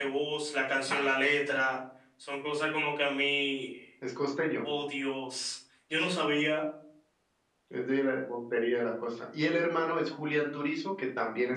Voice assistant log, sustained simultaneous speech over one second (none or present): none